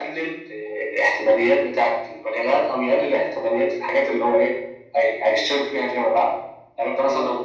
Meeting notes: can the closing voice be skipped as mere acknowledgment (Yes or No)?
Yes